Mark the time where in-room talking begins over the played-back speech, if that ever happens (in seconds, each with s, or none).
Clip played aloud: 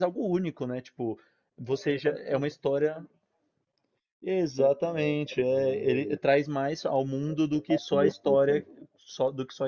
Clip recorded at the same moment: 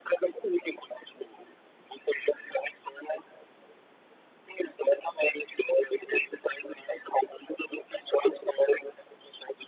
none